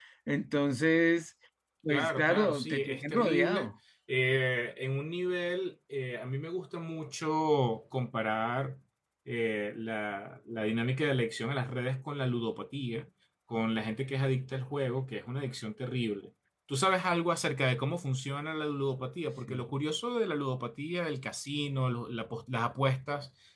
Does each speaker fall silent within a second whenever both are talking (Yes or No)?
No